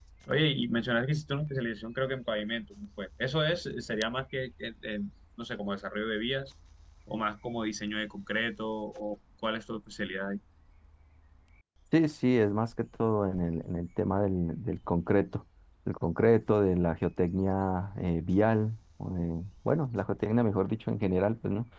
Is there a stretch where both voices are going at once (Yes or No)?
No